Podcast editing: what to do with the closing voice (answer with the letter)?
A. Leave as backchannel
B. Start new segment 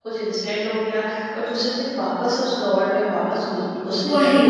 A